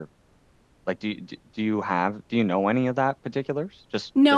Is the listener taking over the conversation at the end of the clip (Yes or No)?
Yes